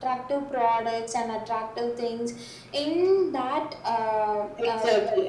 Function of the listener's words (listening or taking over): taking over